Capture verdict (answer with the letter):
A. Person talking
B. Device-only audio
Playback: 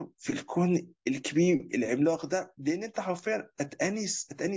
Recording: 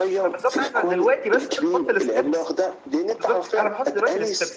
A